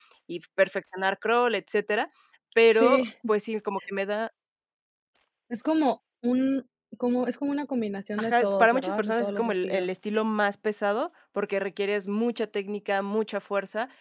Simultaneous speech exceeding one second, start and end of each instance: 8.2-9.9

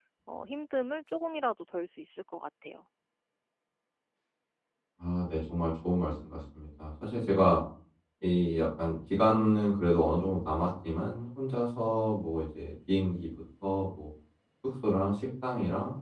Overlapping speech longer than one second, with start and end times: none

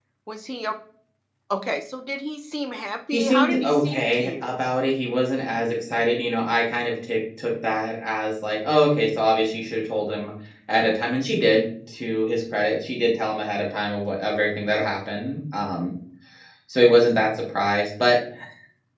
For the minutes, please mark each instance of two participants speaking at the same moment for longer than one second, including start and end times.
3.1-4.6

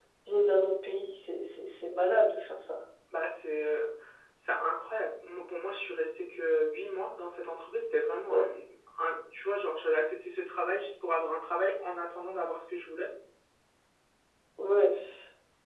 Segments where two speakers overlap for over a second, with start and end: none

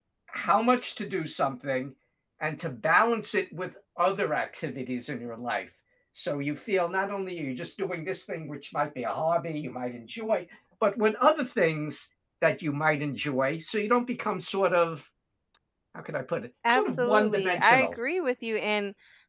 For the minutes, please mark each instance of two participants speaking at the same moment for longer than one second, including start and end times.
16.7-18.0

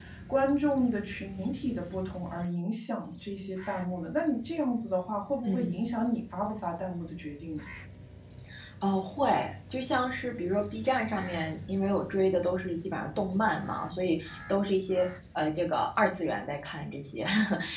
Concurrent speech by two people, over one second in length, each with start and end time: none

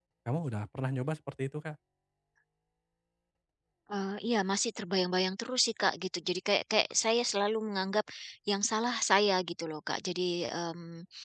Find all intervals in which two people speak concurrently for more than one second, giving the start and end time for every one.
none

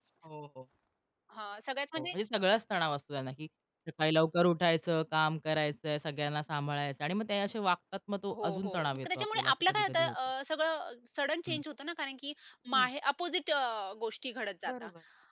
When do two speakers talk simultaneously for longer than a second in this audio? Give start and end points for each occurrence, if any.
8.3-10.2

